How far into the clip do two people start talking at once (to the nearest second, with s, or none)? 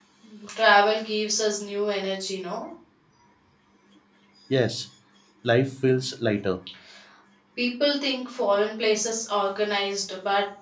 none